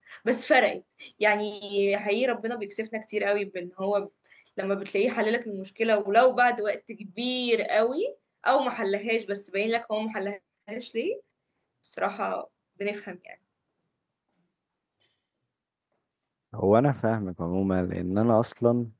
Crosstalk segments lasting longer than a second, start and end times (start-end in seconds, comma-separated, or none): none